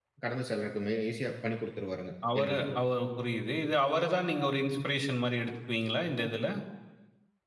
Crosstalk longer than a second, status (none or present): none